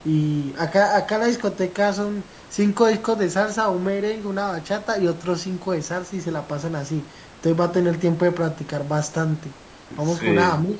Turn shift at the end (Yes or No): No